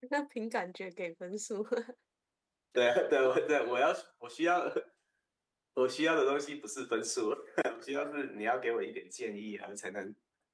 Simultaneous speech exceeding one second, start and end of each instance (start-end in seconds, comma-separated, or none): none